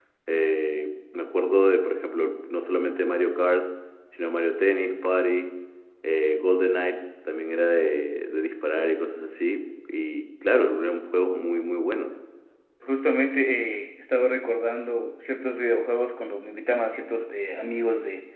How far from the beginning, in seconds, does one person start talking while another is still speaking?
none

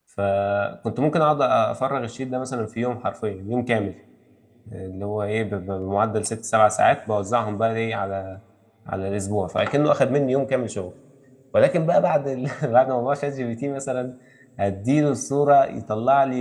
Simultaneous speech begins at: none

